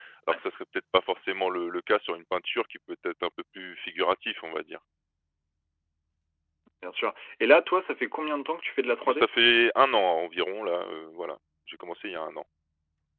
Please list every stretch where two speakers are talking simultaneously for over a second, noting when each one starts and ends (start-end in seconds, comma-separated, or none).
none